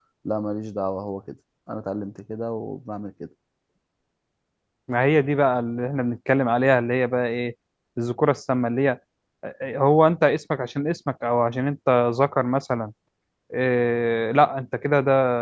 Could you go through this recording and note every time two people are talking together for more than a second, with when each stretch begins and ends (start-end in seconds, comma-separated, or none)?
none